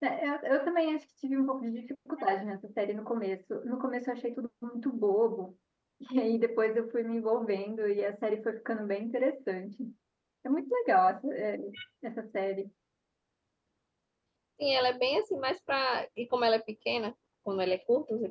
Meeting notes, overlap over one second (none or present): none